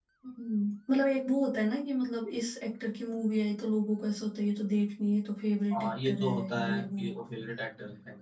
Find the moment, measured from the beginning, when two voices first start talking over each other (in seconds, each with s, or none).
5.7 s